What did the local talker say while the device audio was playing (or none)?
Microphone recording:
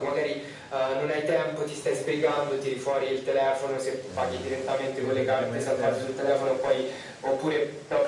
E c e praticamente